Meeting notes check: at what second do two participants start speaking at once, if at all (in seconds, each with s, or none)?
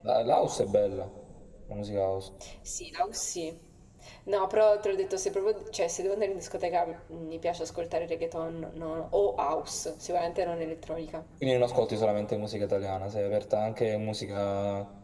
none